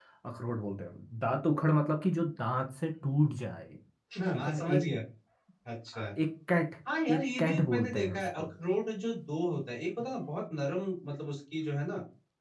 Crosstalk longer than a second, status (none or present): present